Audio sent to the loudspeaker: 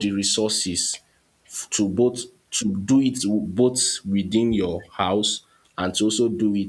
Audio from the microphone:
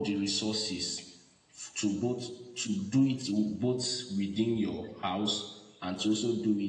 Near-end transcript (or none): none